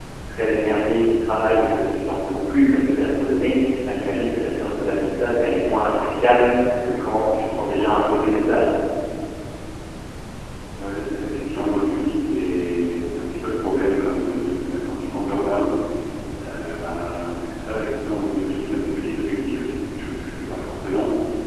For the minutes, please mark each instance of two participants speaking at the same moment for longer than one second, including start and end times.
none

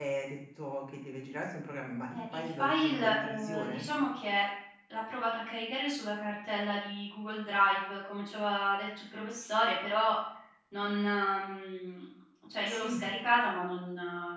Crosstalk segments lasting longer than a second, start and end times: 2.1-3.8

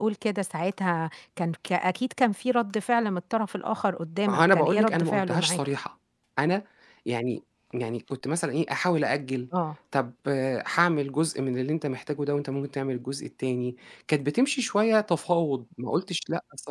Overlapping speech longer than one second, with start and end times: 4.3-5.6

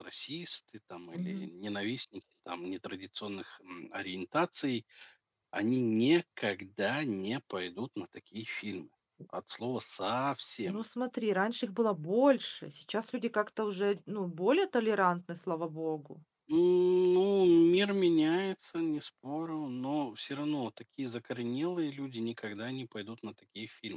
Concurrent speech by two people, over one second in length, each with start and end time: none

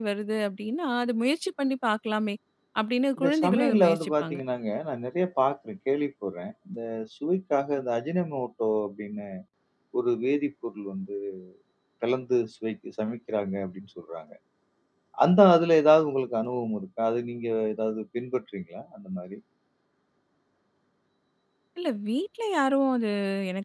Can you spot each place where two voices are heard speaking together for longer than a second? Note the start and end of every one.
3.2-4.4

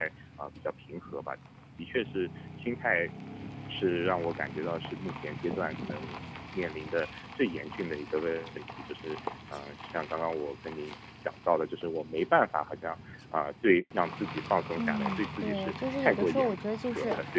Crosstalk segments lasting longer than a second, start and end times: 14.8-16.5

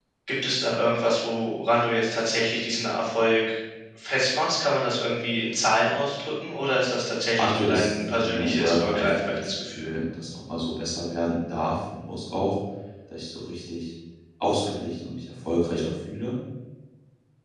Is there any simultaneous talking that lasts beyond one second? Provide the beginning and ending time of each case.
7.3-9.9

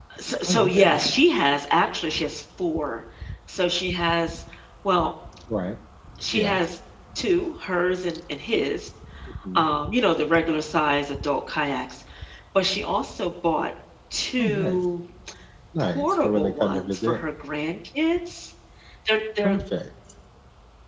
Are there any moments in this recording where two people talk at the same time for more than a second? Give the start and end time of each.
15.8-17.2

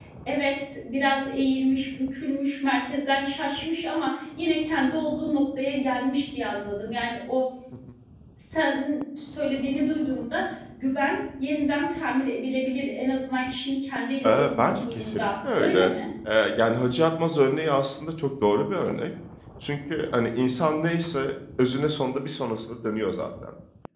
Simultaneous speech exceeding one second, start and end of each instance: 14.2-15.9

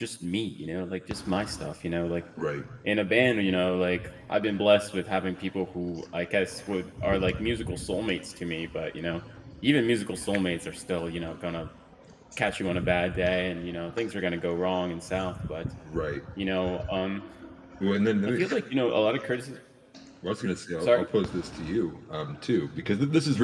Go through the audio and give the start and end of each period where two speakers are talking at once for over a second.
none

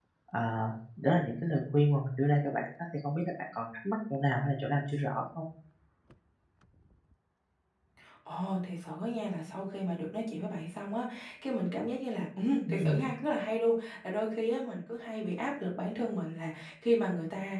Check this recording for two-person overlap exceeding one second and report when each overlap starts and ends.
none

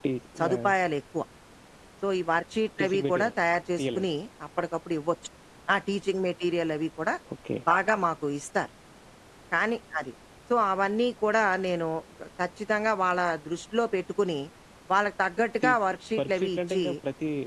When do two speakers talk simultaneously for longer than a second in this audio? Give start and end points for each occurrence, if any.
15.6-16.8

